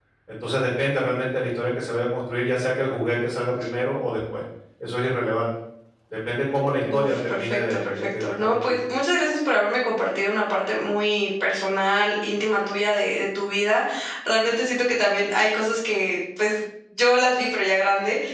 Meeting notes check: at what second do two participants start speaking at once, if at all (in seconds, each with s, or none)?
6.9 s